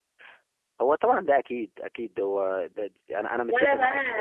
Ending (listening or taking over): taking over